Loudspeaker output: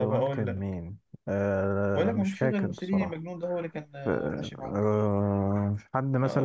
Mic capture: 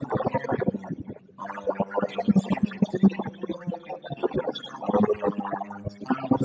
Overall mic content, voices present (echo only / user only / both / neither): echo only